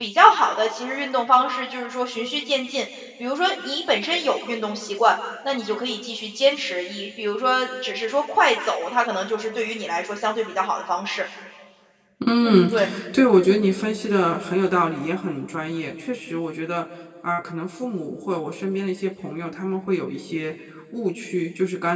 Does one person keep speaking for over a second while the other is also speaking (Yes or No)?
No